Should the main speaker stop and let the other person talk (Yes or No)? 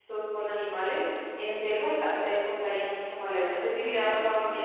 Yes